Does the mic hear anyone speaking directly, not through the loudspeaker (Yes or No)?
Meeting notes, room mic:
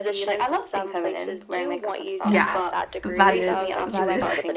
Yes